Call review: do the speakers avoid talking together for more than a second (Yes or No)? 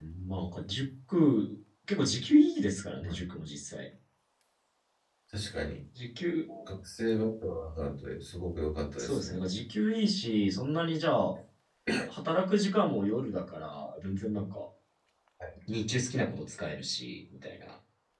Yes